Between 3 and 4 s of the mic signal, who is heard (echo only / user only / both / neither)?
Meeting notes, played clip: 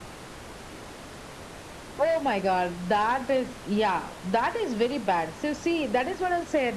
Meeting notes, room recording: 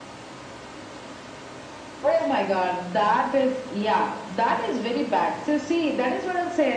echo only